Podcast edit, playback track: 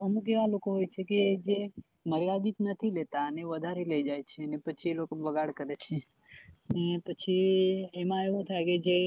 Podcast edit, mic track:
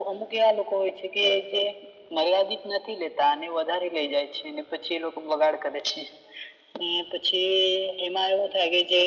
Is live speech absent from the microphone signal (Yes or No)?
Yes